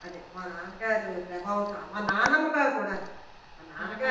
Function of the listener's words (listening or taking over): taking over